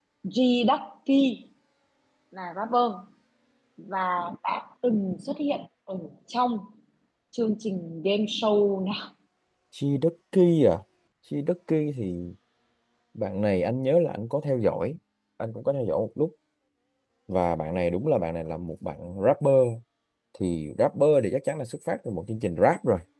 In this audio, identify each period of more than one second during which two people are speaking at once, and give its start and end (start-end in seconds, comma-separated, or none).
none